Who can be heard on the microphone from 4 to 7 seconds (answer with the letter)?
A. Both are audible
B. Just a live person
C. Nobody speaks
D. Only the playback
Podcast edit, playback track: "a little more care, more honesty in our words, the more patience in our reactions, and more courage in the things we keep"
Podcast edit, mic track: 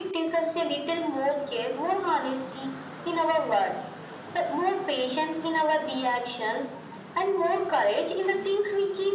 D